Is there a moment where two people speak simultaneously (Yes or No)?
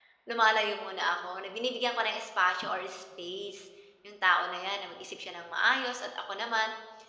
No